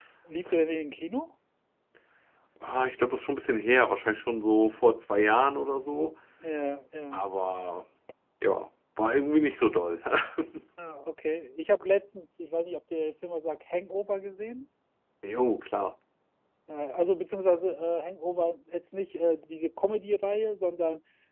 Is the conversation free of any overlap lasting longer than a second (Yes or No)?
Yes